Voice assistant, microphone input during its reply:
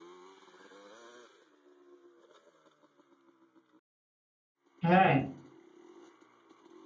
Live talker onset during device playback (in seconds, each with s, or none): 4.8 s